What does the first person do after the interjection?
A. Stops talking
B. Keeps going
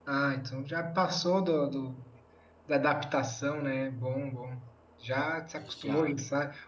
B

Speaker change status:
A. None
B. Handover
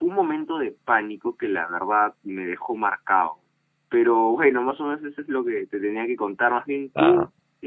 A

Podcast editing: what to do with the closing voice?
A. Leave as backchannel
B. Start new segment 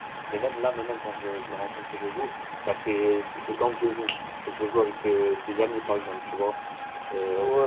A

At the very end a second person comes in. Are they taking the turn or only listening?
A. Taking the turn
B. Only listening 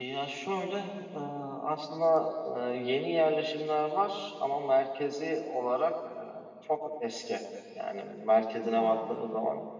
B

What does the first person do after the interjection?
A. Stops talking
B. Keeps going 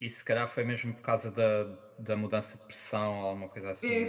A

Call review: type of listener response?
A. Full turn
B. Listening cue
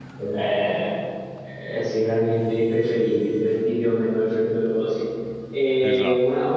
B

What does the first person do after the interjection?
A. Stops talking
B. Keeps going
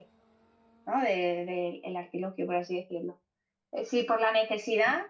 B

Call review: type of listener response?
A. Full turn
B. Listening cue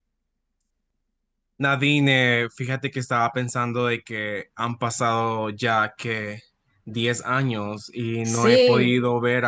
B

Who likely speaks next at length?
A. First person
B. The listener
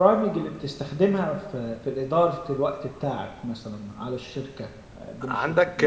B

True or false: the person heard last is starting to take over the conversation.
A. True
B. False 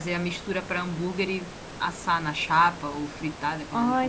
A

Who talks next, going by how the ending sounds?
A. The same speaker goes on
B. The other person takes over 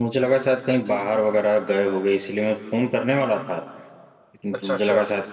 A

